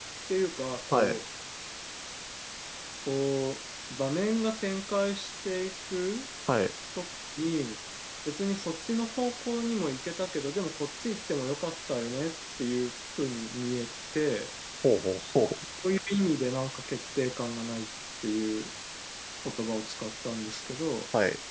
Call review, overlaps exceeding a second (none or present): none